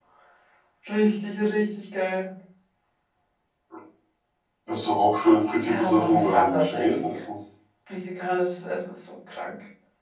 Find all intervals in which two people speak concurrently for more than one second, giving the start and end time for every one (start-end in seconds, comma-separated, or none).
5.6-7.2